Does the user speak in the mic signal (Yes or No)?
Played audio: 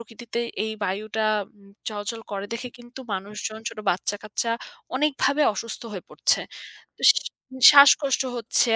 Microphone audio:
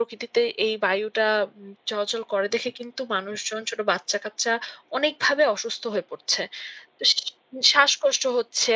No